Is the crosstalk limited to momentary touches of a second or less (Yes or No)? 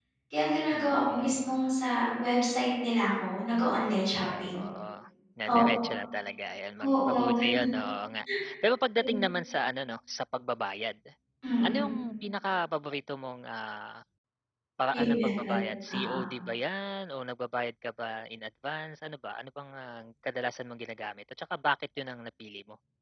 No